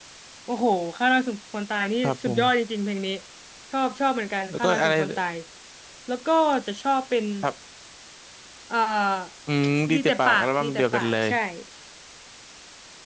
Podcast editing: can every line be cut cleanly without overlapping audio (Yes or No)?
No